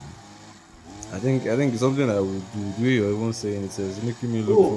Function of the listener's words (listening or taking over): taking over